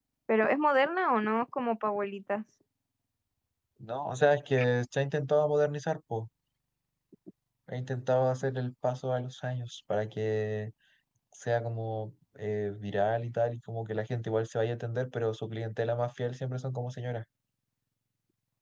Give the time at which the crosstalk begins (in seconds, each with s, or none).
none